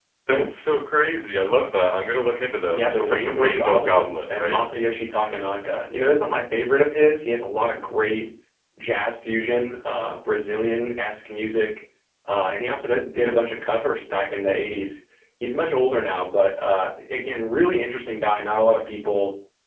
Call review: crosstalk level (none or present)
present